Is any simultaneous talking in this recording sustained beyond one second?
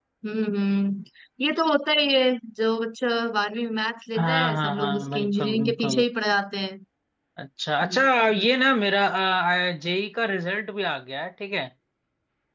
Yes, from 4.2 s

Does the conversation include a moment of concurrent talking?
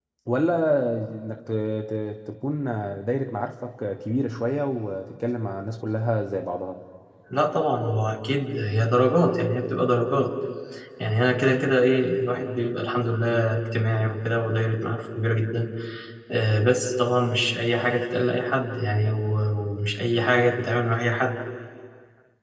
No

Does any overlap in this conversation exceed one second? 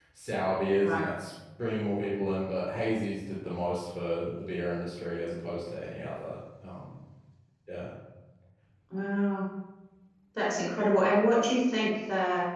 No

